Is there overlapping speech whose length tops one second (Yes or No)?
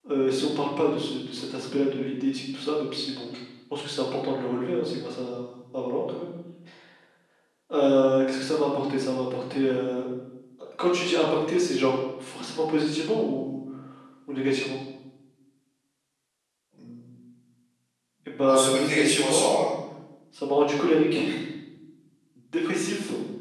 Yes